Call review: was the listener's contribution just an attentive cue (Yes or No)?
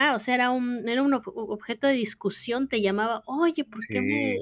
Yes